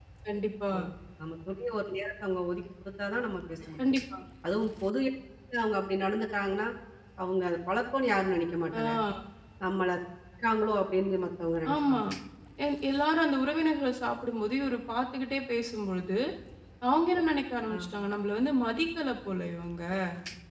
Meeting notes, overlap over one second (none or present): none